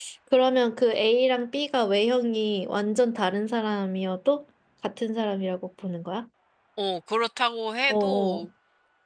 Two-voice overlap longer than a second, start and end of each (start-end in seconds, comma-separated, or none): none